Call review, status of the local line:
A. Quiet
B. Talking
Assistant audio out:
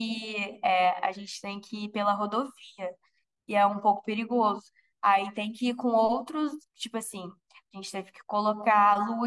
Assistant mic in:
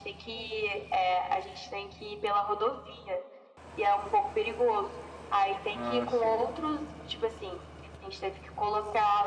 B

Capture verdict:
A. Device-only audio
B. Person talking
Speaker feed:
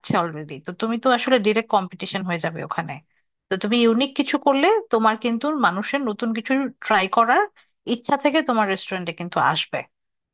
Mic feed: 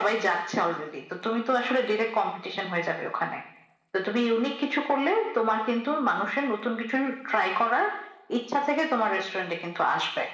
A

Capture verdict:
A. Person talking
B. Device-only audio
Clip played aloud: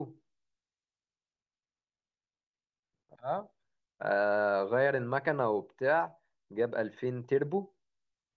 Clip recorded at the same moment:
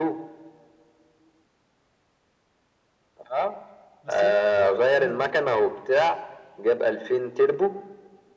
A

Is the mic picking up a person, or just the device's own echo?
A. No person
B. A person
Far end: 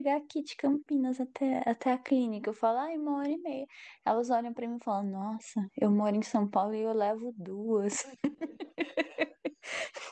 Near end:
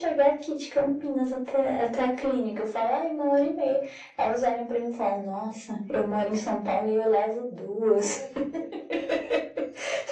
A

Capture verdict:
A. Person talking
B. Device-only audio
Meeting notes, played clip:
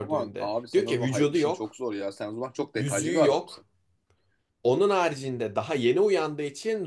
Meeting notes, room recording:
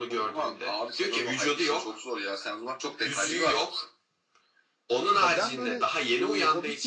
A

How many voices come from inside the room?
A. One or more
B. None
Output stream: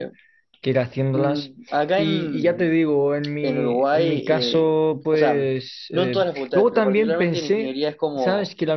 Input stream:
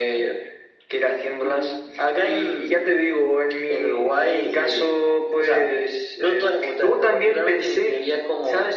B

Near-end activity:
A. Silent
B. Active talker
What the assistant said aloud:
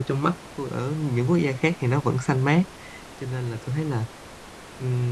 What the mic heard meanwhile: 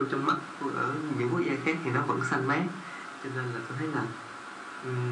A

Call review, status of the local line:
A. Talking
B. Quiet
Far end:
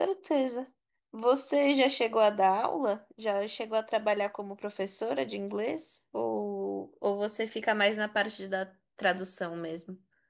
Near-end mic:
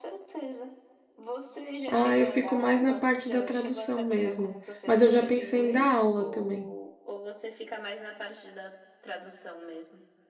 A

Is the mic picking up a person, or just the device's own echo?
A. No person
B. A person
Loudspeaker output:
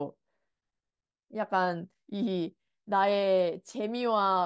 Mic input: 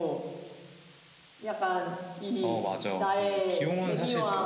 B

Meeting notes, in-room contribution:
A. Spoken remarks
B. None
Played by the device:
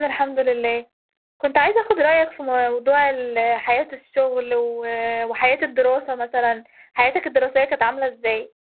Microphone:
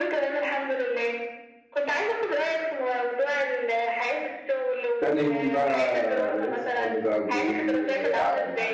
A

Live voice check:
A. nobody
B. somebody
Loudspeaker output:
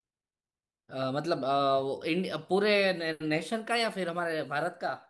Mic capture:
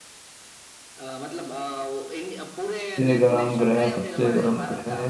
B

